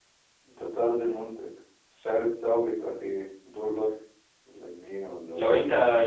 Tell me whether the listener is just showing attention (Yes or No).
No